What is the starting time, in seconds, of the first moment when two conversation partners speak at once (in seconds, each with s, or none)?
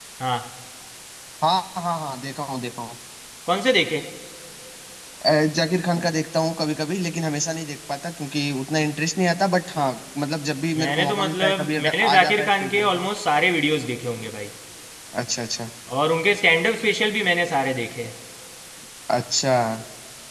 10.8 s